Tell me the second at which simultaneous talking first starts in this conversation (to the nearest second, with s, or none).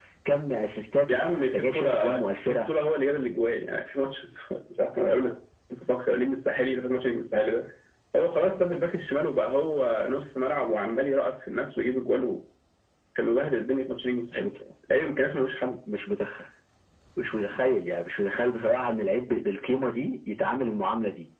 1 s